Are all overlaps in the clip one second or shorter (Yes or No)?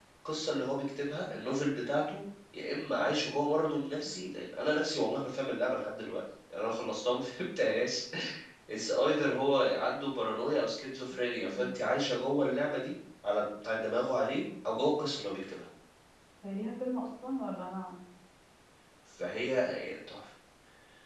Yes